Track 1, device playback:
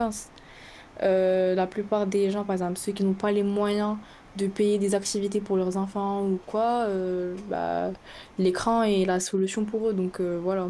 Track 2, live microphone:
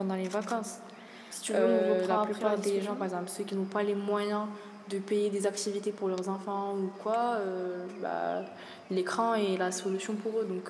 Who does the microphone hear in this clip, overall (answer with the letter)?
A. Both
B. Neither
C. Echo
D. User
A